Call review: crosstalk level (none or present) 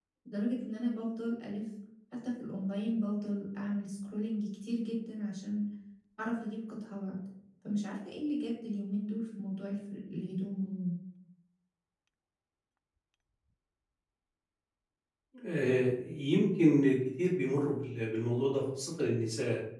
none